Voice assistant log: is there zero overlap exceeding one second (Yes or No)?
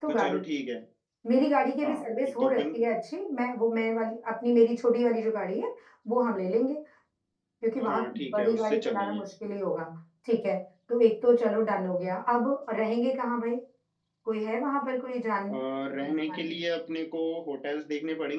No